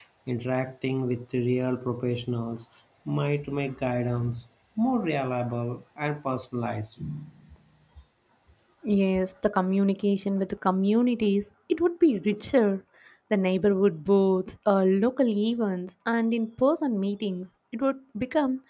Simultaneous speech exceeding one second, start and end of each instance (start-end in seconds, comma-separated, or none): none